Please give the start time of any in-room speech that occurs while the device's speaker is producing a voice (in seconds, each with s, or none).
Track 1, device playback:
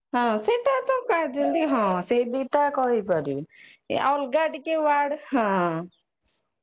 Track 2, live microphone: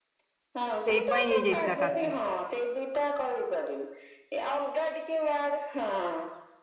0.8 s